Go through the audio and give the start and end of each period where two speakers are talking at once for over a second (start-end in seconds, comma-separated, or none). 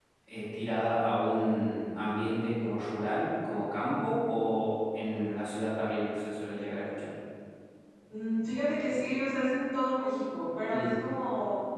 none